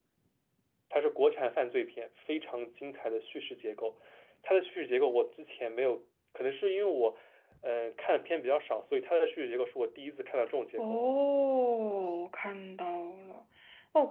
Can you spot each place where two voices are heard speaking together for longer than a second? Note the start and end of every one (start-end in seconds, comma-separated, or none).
none